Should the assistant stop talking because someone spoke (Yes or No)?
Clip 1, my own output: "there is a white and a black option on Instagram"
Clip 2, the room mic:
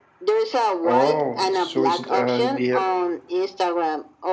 Yes